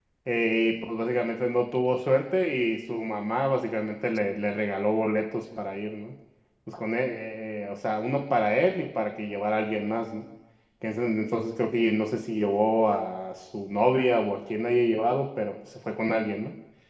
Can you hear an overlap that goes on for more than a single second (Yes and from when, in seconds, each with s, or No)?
No